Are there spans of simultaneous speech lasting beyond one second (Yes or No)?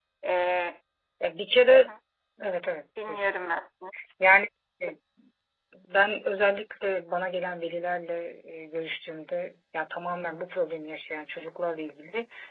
No